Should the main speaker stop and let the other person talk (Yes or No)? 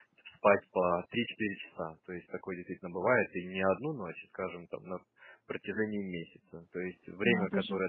No